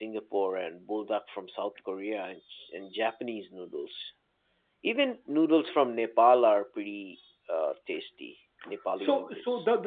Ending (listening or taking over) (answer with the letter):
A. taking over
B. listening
A